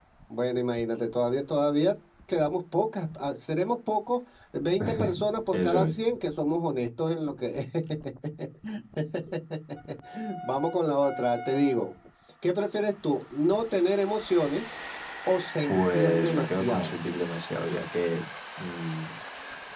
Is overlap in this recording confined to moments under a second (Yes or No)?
No